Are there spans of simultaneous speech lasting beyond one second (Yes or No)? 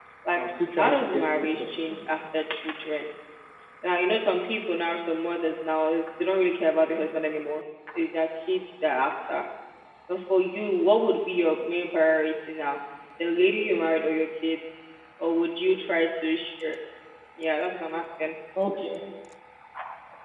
Yes